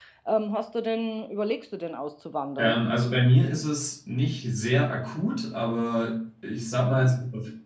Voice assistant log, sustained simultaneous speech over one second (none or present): none